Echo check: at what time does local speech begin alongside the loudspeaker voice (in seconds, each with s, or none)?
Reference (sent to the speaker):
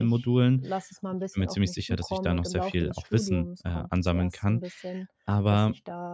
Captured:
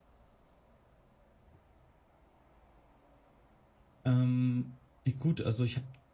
4.0 s